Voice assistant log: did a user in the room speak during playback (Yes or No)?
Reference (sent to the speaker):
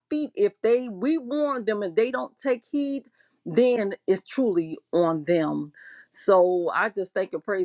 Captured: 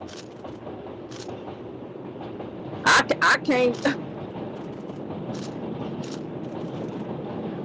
Yes